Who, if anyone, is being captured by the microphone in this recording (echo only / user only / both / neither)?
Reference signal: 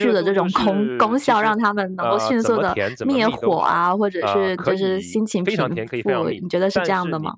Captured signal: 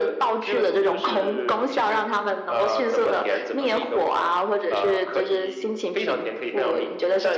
echo only